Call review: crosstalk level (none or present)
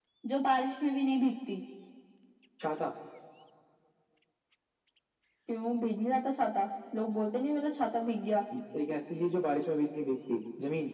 none